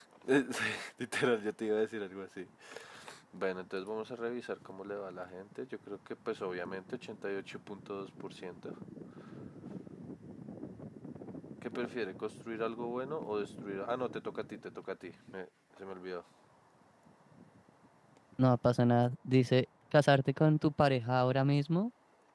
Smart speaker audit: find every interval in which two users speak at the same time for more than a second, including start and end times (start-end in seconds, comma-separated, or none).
none